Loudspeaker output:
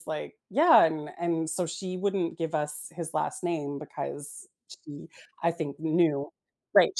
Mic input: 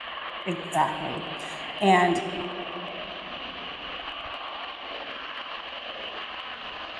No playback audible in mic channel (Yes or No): Yes